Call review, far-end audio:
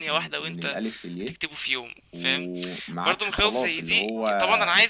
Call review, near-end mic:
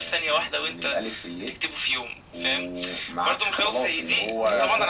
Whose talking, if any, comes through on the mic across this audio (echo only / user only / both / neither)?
both